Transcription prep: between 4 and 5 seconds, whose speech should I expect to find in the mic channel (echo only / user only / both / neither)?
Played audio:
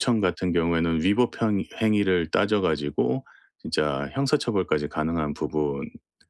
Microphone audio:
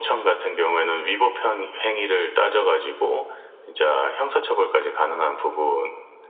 echo only